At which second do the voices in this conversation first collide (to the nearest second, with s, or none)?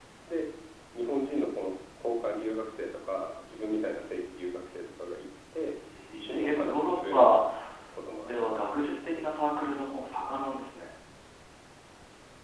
6 s